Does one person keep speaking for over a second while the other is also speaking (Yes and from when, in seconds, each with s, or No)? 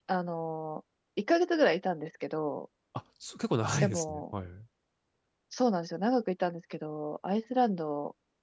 No